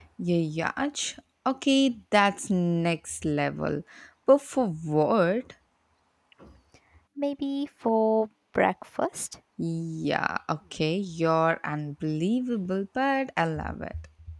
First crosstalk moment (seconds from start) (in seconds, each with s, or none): none